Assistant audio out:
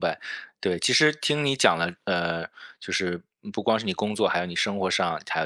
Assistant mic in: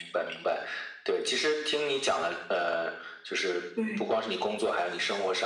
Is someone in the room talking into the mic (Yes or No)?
Yes